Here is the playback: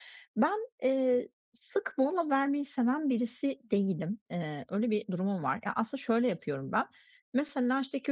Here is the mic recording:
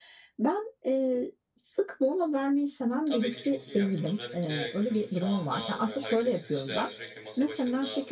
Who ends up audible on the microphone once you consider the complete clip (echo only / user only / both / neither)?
both